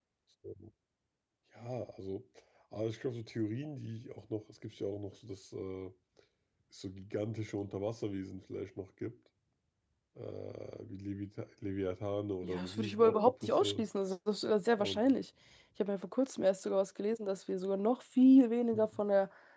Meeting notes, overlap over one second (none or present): present